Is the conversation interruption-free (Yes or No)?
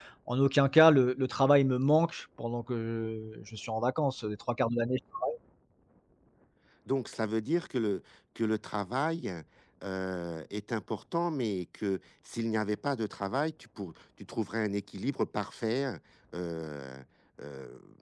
Yes